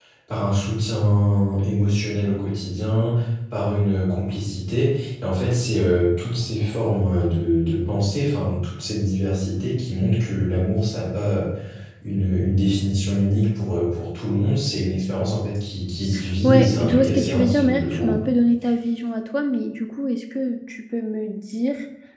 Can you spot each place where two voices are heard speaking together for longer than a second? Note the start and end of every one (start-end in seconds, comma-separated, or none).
16.4-18.1